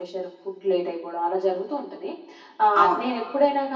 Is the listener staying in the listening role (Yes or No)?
Yes